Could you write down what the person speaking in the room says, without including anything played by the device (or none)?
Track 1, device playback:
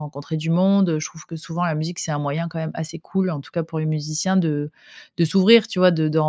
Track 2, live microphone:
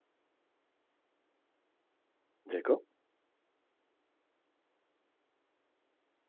D'accord.